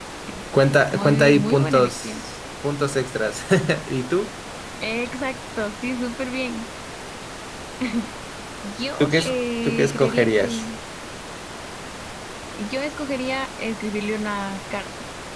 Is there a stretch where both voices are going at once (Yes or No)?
Yes